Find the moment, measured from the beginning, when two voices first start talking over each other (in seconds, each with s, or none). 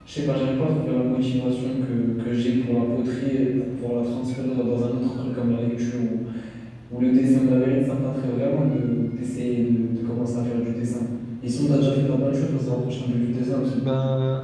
12.5 s